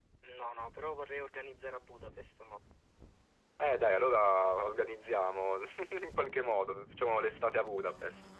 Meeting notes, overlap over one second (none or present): none